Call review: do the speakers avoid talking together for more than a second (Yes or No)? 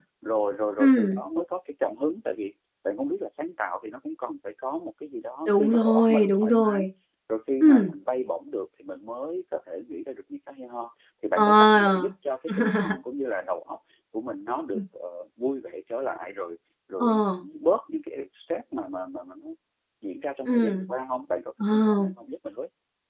No